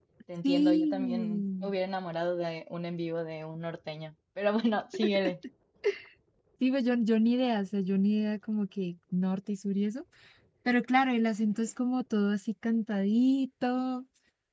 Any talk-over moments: Yes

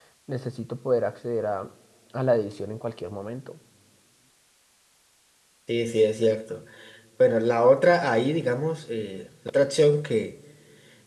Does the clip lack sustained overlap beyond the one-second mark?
Yes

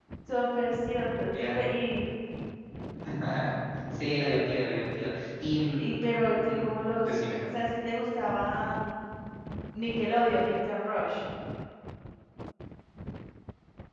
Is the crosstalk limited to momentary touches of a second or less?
Yes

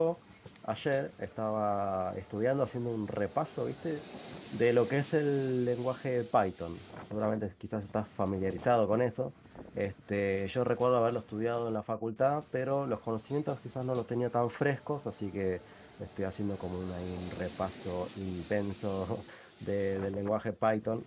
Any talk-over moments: No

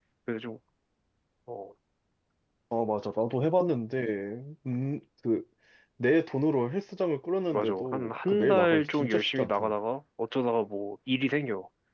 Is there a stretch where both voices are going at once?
Yes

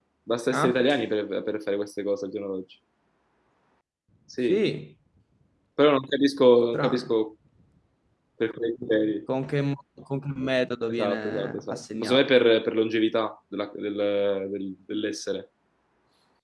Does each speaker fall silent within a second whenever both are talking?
No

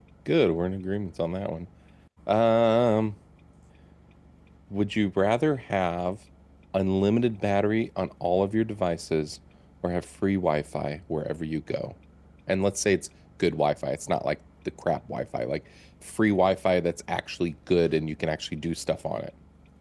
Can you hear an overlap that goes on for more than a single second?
No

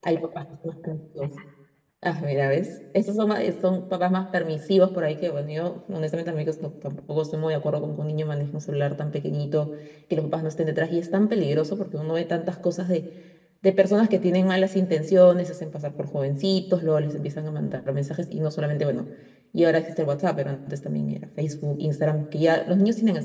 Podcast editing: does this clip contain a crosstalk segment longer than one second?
No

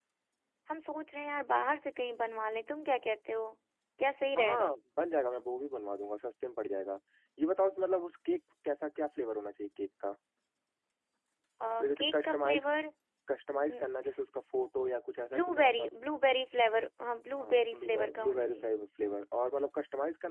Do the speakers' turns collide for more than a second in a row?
Yes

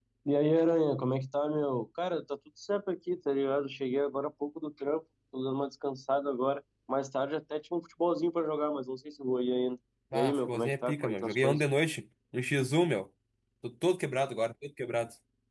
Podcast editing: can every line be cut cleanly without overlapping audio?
No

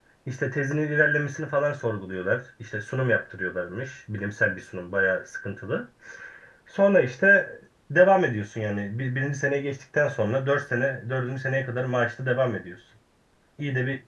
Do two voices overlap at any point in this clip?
No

